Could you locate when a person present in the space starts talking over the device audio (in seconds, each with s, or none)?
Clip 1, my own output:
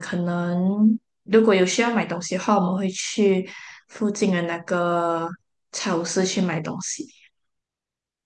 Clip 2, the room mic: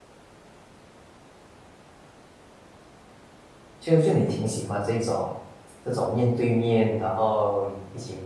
3.8 s